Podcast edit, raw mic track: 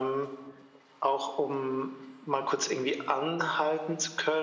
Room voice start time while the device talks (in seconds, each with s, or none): none